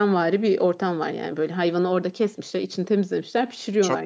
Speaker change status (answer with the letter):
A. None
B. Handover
A